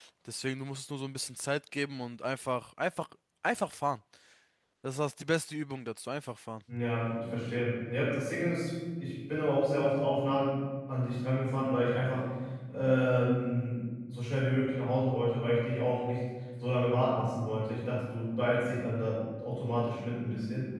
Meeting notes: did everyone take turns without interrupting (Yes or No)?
Yes